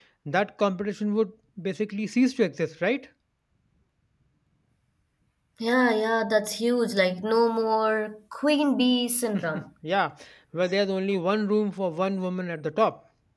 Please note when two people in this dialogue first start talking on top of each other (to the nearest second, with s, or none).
none